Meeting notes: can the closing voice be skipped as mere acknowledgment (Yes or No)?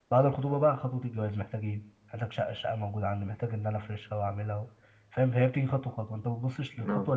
Yes